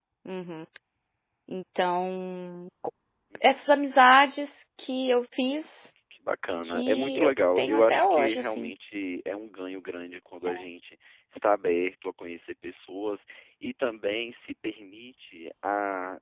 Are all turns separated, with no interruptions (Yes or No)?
No